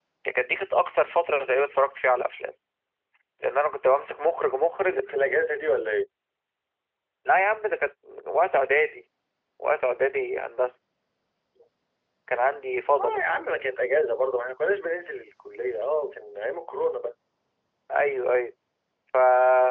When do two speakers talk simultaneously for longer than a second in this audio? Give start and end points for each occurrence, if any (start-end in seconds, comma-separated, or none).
none